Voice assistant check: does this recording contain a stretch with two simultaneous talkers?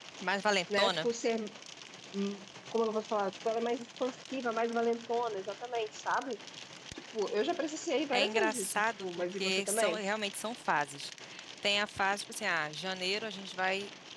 Yes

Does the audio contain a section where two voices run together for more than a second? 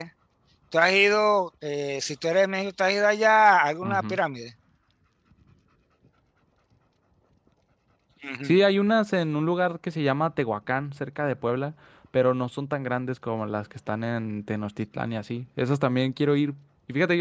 No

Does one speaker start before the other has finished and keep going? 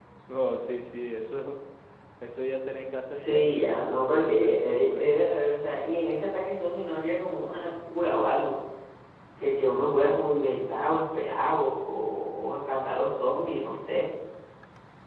Yes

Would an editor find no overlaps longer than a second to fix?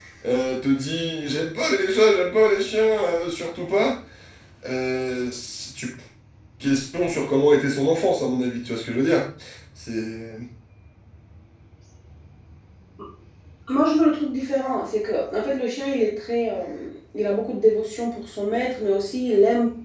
Yes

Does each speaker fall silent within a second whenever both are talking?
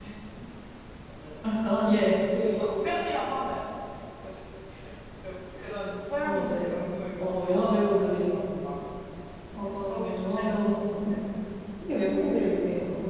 No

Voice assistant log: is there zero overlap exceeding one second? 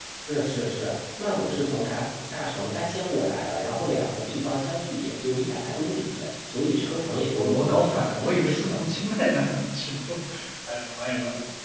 No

